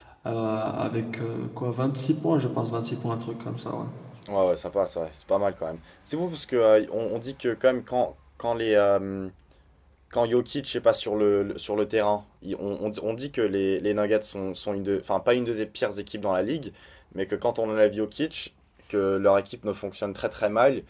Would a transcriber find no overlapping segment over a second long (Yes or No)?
Yes